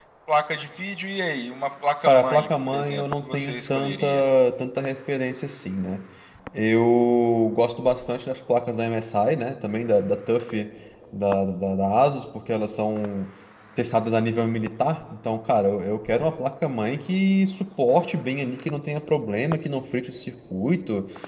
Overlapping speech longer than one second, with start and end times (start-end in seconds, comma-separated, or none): 2.1-4.0